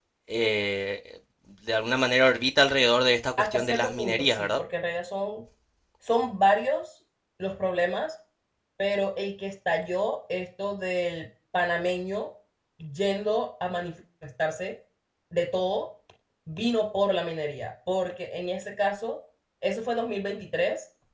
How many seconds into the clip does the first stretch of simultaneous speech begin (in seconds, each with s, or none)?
3.4 s